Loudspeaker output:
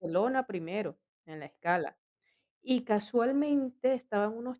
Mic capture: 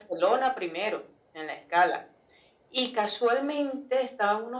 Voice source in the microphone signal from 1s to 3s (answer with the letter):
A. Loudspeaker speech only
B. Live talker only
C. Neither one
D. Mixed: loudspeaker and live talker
A